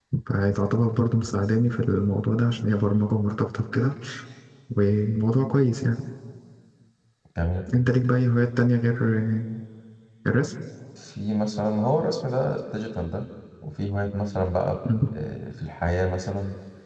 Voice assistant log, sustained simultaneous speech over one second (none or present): none